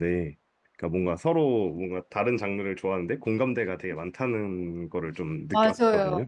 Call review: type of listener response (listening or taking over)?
taking over